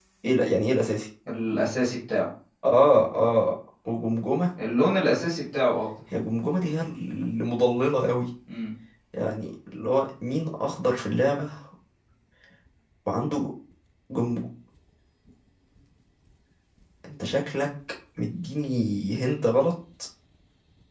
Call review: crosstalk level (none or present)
none